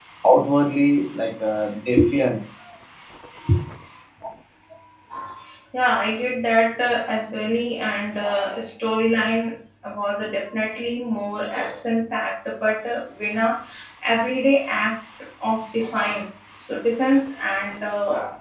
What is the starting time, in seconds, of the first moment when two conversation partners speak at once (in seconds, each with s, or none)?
none